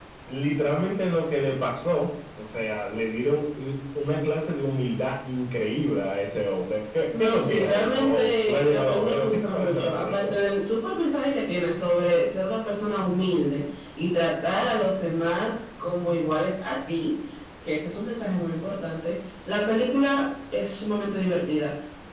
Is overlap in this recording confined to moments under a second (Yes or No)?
No